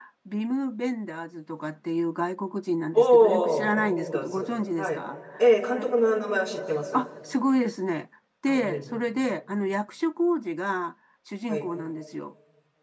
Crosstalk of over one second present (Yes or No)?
Yes